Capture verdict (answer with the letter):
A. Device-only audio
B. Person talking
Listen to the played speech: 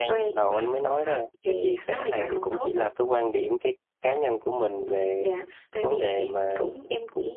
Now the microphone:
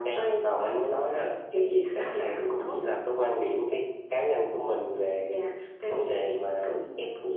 A